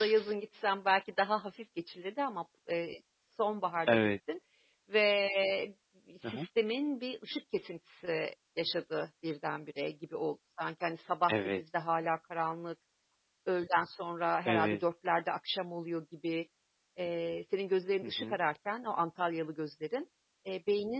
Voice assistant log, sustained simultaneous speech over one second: none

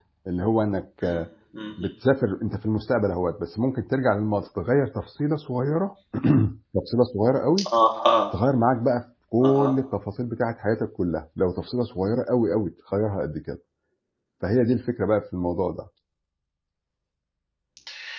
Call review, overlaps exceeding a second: none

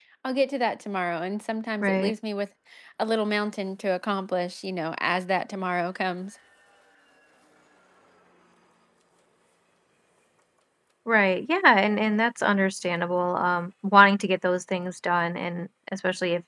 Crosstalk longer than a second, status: none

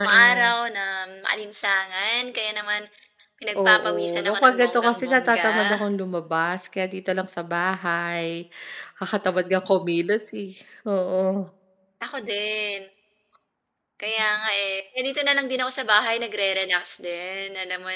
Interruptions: present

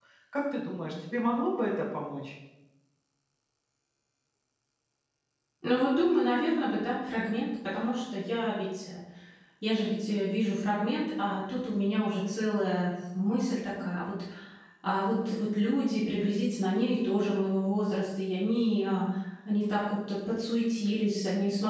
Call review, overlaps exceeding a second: none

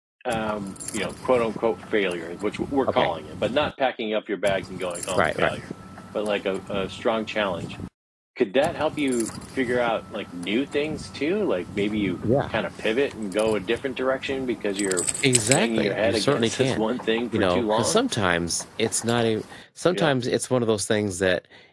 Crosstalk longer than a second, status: present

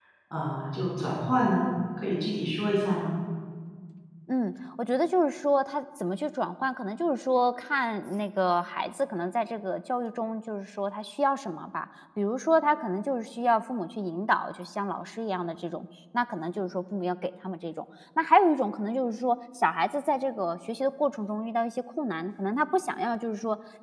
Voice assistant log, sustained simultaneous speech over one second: none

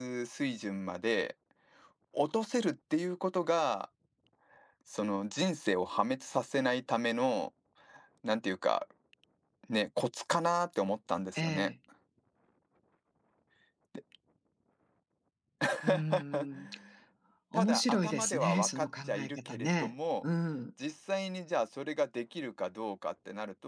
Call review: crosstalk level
present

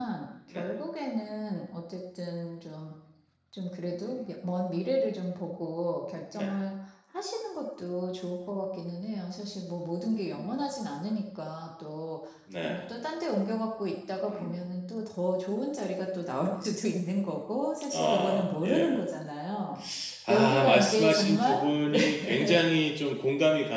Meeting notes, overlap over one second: present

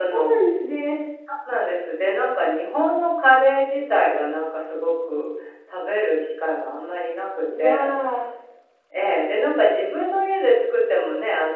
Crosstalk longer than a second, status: none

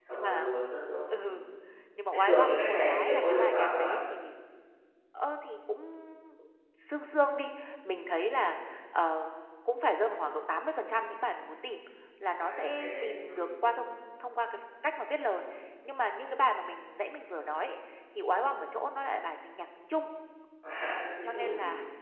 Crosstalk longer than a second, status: present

